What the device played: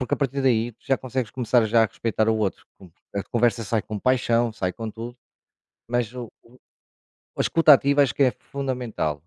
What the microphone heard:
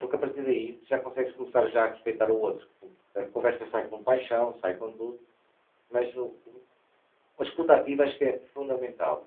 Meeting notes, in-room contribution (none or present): none